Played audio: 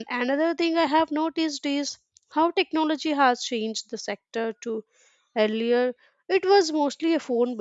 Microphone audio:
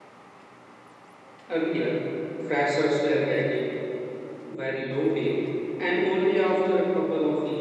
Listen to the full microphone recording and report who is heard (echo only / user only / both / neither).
user only